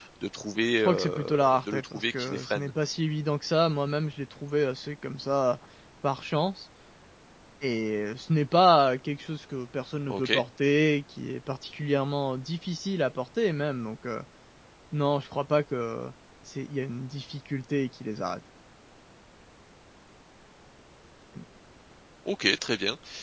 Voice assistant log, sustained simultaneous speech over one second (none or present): present